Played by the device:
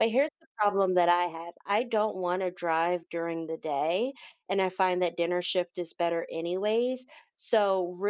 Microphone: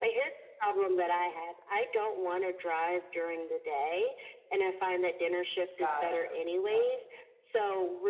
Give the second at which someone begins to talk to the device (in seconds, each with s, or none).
5.8 s